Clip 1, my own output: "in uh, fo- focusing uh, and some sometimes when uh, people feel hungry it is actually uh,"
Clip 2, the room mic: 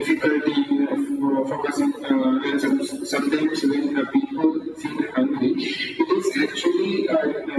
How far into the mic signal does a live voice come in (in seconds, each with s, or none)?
none